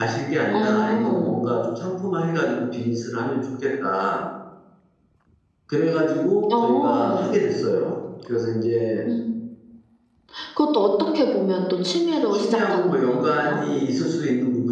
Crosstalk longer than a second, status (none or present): present